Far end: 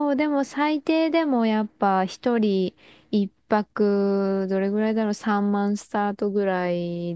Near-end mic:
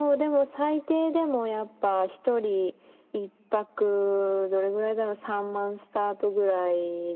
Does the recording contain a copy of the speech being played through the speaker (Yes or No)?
Yes